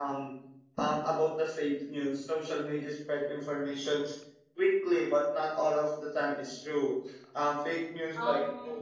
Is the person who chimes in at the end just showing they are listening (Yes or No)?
No